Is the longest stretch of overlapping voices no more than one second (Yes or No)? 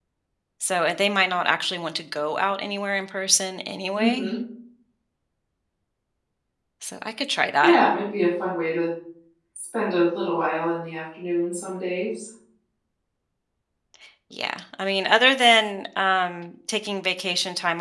Yes